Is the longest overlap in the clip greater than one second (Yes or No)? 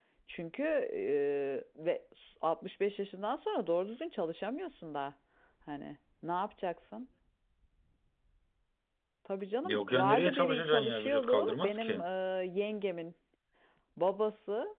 Yes